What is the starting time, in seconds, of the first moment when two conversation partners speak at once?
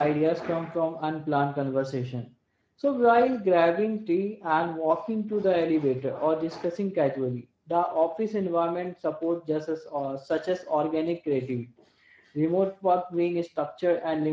none

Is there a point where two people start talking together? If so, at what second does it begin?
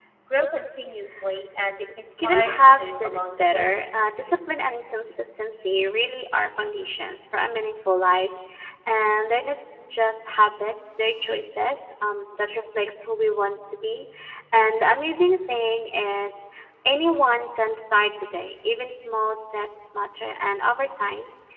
2.2 s

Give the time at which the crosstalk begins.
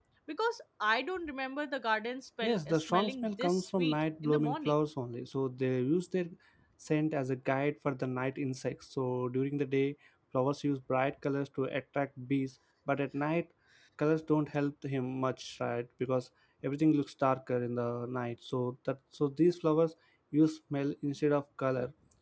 2.4 s

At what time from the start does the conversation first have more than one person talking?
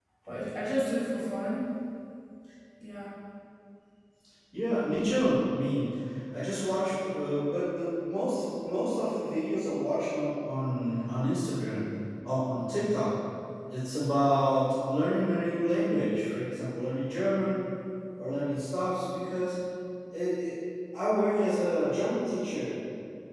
none

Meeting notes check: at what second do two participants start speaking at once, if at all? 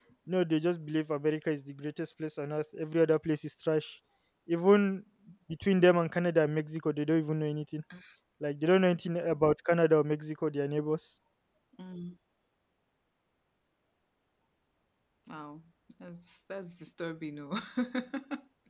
none

